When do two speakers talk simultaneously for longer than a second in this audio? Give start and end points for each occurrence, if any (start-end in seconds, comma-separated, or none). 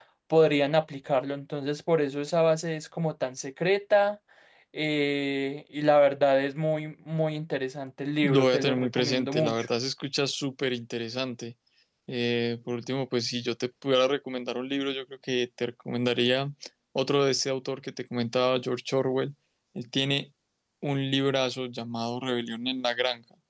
8.2-9.7